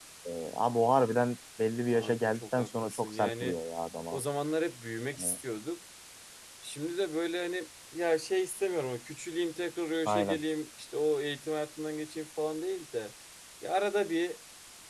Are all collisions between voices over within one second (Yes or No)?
No